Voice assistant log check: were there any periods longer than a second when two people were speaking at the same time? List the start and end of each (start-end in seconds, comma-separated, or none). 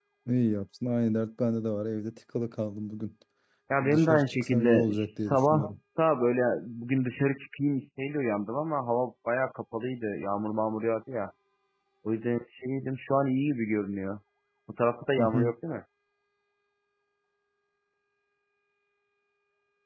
3.8-5.8